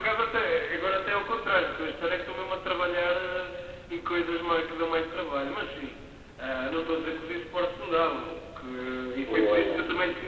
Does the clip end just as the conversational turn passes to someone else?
No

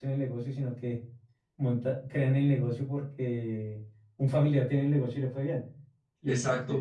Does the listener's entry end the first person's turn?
No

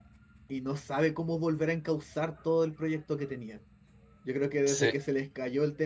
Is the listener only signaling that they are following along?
Yes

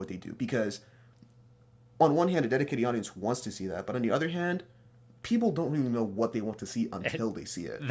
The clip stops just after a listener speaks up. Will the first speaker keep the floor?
No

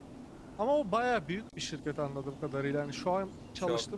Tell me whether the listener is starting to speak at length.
No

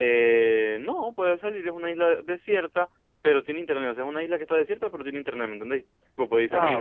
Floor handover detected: Yes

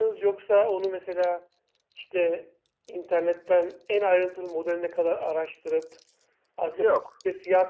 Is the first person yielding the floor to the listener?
No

